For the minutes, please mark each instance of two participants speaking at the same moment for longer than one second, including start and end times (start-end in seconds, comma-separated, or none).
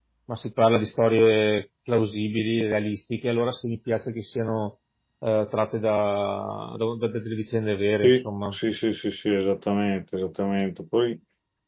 none